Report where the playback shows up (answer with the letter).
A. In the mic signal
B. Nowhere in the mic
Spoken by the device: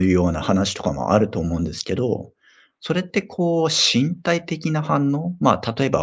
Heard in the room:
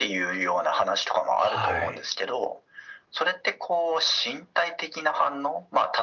A